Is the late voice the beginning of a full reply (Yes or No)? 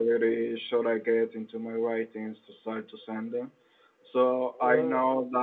No